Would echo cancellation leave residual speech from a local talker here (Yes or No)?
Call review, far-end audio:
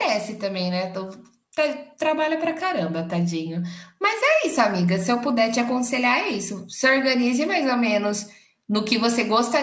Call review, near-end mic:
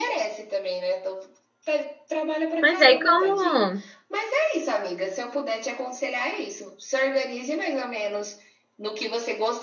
Yes